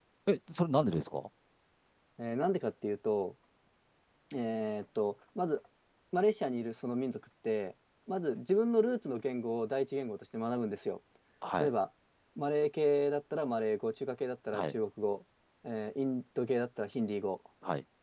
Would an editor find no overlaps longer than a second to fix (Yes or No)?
Yes